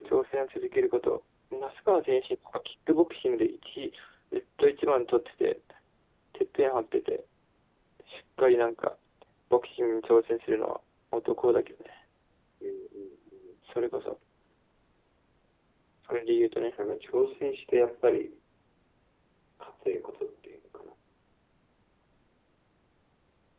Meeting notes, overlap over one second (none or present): none